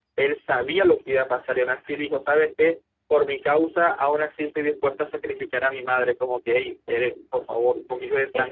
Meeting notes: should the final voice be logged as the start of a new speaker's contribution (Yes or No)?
Yes